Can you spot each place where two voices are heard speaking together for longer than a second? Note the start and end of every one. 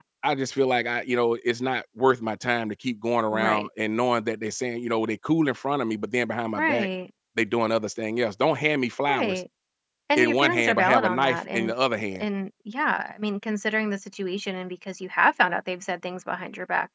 10.2-11.7

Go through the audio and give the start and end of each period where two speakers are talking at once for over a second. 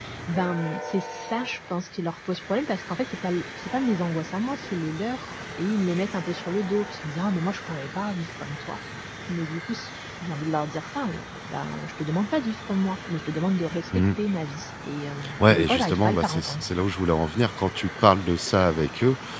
15.4-16.6

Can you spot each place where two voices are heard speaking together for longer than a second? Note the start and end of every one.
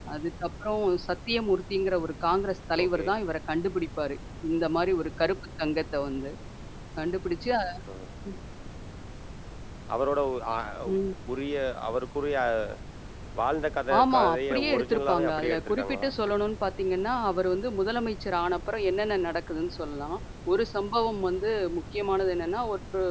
14.0-16.1

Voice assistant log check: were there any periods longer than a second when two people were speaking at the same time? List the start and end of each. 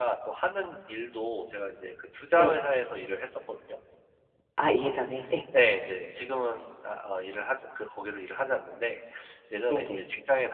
none

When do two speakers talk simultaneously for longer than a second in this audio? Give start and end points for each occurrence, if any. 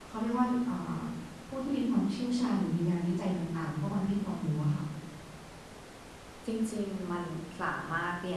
none

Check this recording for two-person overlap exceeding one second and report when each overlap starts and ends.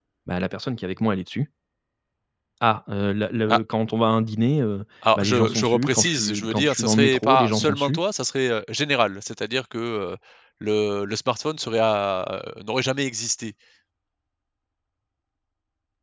5.2-8.0

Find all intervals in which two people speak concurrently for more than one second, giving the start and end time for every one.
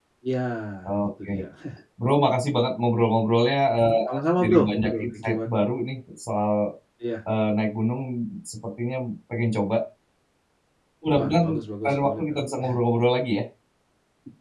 4.1-5.5

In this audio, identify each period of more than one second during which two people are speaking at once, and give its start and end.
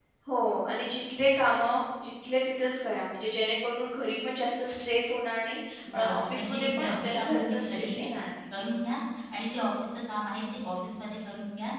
5.9-8.0

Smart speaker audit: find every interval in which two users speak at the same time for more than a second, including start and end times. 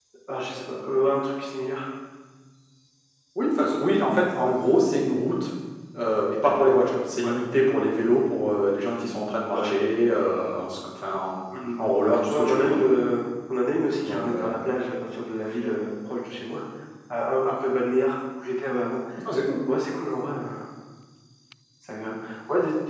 none

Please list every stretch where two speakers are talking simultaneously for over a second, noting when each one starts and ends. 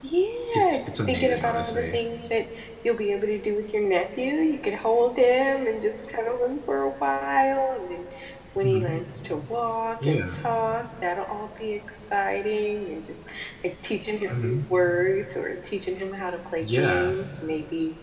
0.5-2.0

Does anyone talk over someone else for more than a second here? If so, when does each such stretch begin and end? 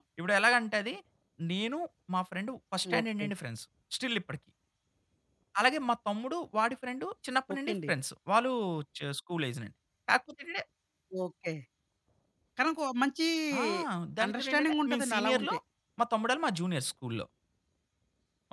14.2-15.6

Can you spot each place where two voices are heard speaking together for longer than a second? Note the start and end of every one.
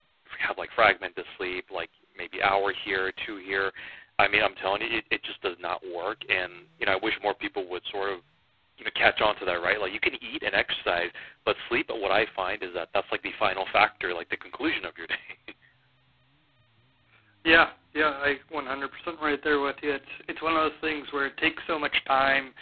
none

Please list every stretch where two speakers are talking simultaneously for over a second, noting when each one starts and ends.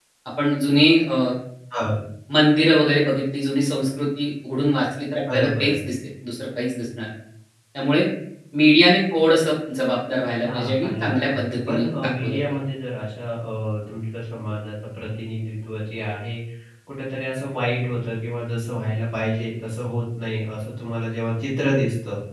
10.4-12.4

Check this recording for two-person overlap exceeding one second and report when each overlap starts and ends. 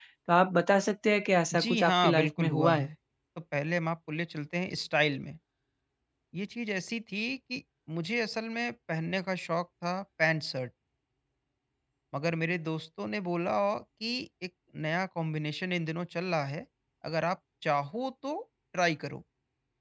1.5-2.9

